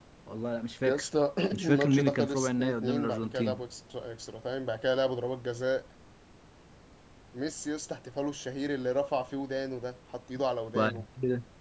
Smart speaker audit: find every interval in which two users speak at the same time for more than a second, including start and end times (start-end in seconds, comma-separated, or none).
1.5-3.6